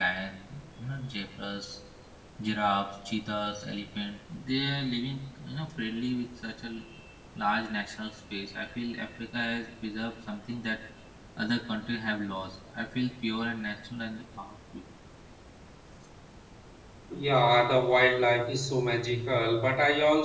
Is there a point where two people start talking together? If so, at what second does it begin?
none

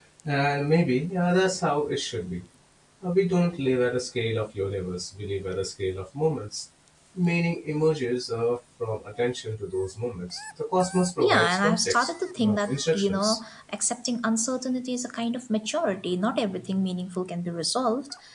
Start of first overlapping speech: 11.2 s

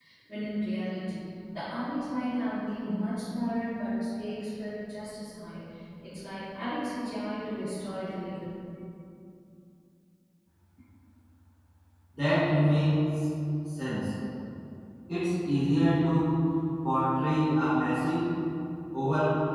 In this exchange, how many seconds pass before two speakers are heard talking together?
none

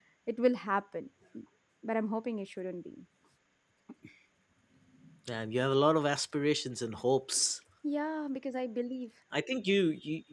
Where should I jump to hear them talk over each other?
none

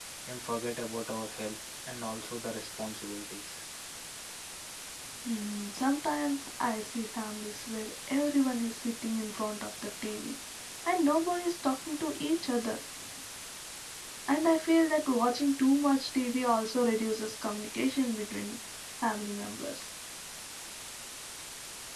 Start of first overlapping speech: none

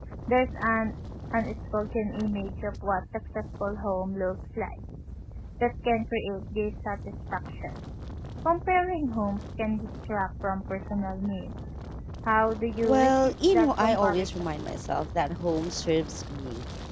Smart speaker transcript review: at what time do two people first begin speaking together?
12.8 s

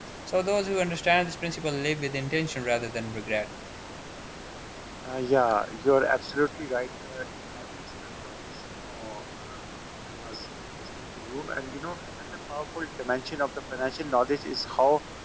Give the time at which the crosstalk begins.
none

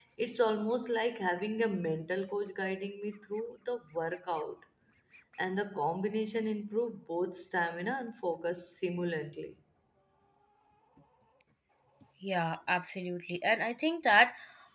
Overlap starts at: none

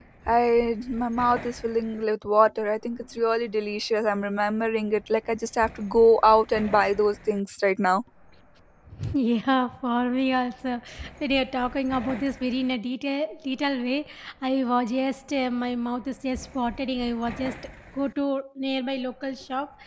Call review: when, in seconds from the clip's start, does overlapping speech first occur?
none

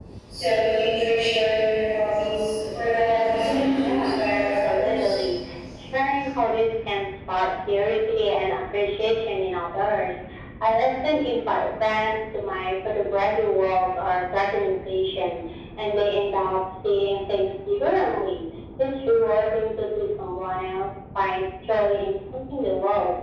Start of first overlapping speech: 3.8 s

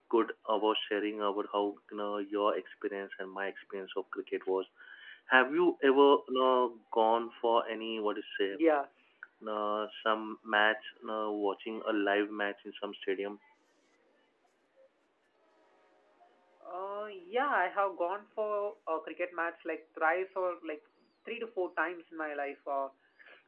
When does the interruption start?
none

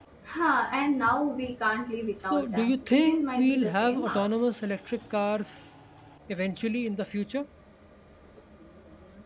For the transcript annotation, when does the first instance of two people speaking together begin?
2.3 s

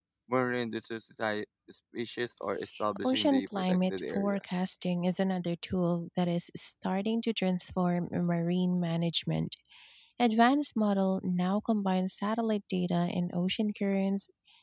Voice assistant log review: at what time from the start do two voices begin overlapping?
3.0 s

